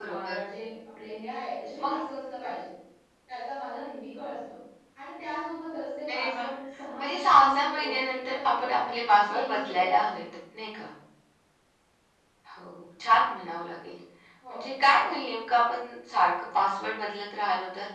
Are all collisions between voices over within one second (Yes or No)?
No